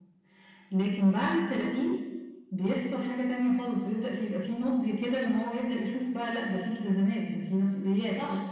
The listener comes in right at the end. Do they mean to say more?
Yes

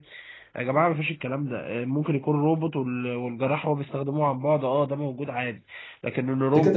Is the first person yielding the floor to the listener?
Yes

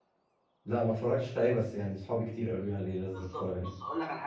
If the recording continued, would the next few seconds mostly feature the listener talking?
Yes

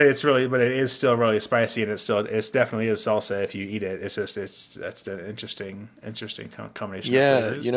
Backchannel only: No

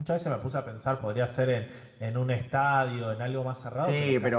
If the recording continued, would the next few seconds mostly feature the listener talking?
Yes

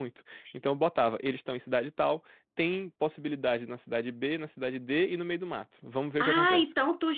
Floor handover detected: Yes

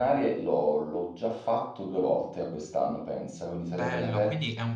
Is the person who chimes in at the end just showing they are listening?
No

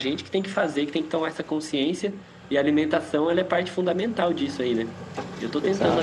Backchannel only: Yes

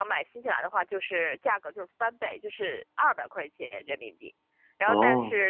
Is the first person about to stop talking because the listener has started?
No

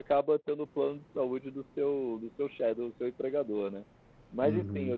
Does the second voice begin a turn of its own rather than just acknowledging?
Yes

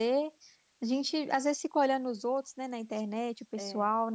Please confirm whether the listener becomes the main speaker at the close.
No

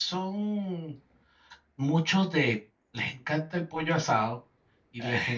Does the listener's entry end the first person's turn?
No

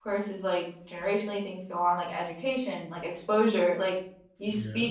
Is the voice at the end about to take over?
No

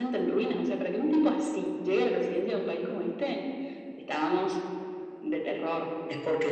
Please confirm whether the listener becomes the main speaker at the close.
Yes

